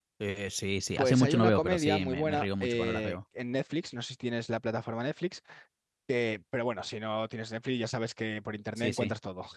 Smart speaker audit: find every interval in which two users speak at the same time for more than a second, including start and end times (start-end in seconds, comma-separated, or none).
0.9-3.1